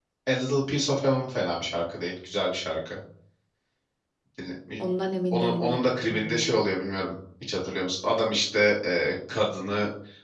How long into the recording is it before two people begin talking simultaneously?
5.3 s

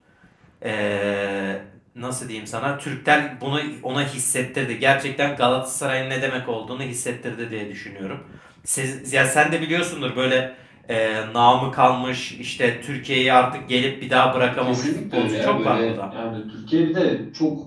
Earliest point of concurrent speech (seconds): 14.4 s

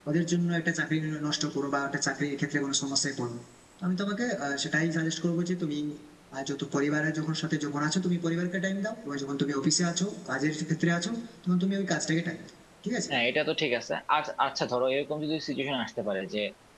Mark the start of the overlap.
none

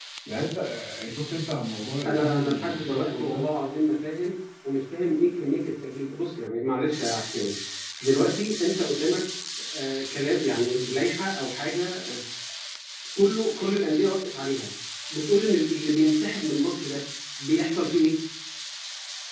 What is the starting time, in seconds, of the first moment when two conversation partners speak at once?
2.0 s

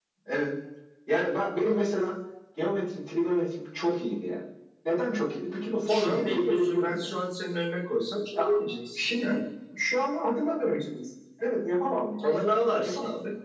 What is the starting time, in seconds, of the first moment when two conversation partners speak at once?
5.9 s

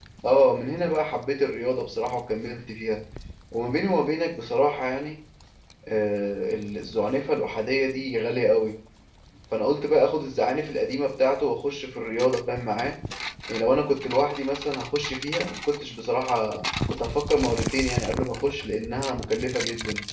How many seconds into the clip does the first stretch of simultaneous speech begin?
none

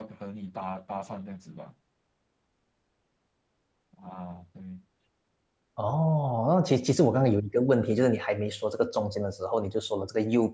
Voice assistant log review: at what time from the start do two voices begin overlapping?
none

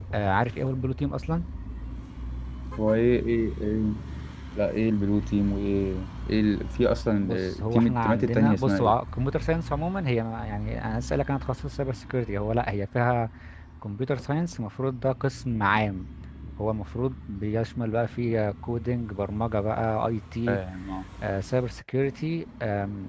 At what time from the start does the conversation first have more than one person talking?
7.2 s

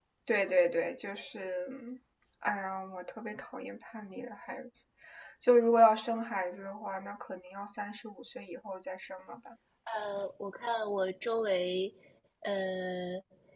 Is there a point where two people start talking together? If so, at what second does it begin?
none

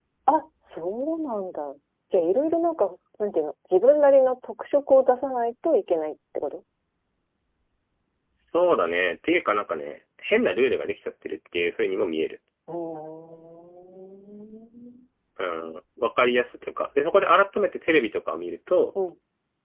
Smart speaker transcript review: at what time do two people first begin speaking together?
none

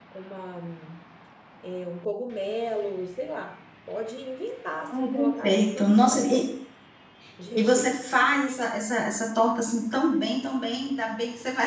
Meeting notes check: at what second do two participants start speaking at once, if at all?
4.9 s

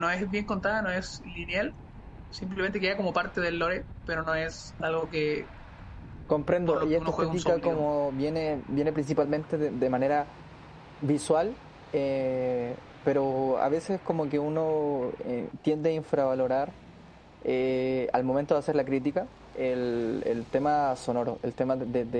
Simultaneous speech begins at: 6.7 s

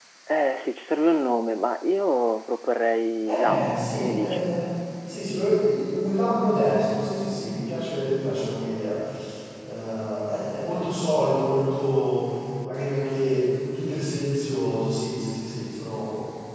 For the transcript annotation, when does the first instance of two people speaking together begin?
3.3 s

